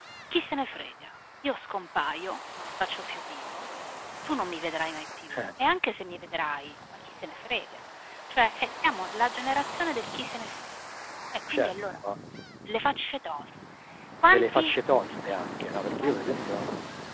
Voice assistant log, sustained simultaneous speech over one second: none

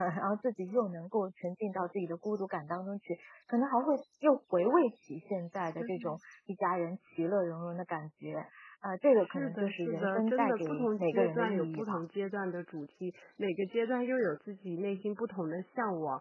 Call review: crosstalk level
present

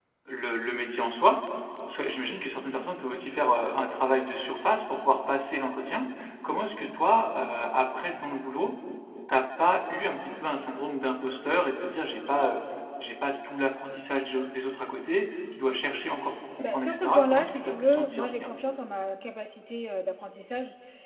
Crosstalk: present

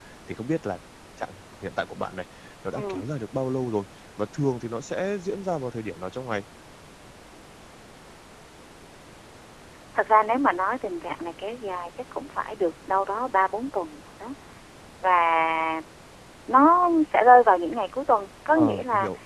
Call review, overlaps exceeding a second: none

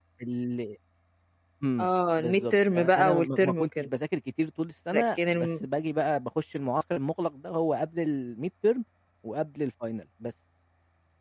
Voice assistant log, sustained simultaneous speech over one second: present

